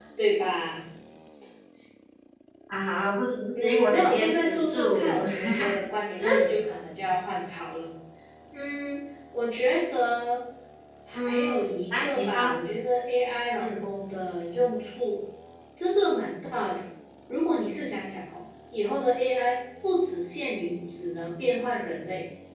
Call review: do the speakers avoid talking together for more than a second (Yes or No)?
No